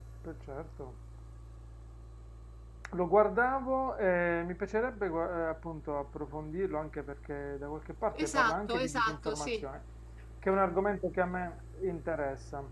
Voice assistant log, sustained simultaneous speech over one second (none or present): present